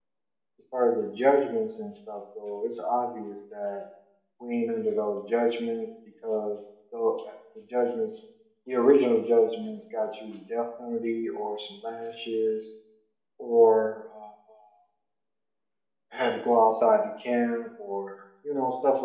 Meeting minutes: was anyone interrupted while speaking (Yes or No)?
No